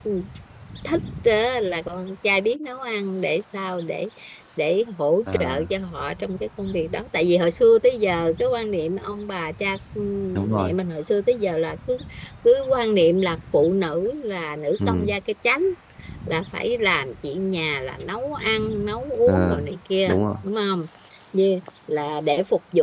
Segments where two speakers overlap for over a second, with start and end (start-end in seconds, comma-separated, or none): none